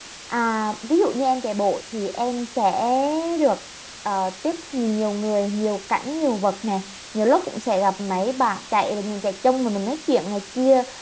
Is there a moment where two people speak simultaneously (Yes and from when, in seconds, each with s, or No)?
No